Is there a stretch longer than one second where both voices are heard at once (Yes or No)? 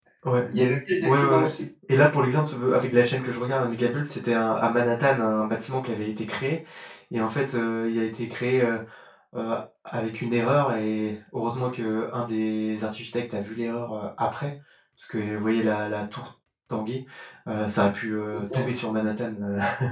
No